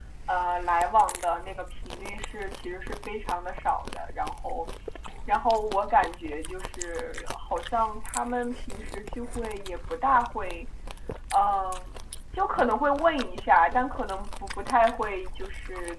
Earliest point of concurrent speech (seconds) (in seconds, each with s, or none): none